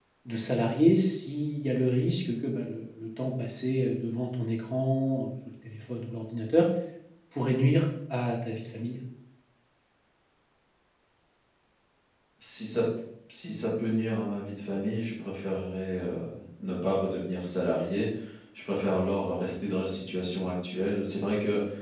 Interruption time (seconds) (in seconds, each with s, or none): none